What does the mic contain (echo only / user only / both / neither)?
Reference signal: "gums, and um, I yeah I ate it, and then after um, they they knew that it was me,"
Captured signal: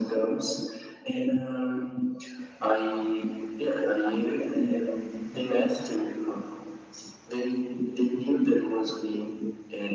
echo only